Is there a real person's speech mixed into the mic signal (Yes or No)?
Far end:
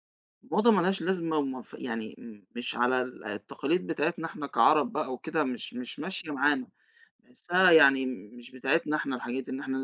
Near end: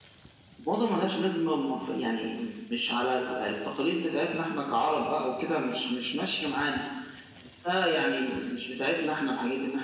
No